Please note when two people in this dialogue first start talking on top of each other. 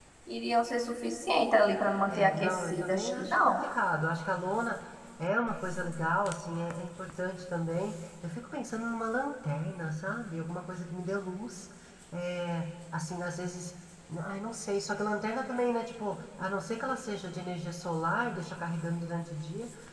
2.1 s

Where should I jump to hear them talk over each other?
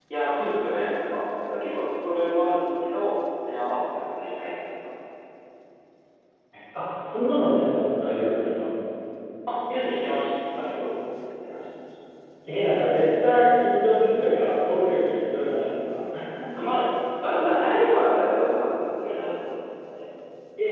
none

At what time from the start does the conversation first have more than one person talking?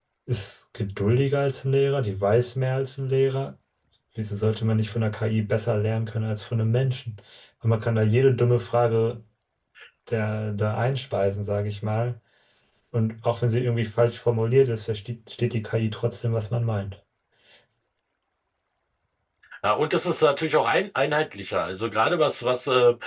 none

